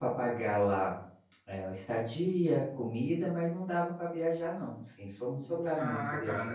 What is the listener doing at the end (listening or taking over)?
taking over